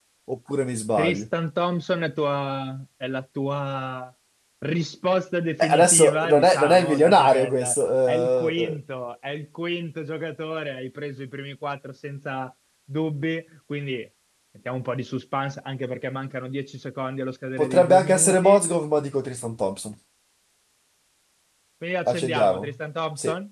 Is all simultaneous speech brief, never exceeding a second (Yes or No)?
No